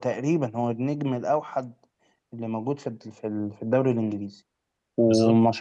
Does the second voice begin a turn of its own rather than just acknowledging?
No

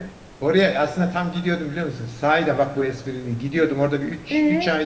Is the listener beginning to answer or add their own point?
No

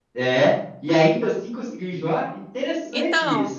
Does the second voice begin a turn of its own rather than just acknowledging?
Yes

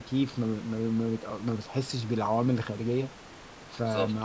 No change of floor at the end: Yes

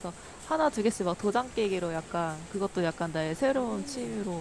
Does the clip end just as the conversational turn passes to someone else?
No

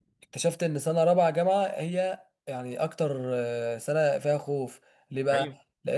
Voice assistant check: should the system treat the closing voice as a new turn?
No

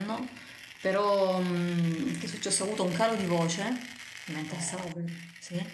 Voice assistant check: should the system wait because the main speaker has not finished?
Yes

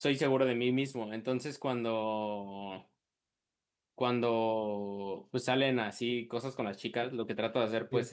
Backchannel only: Yes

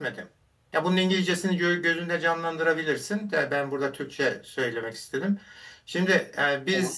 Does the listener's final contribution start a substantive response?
No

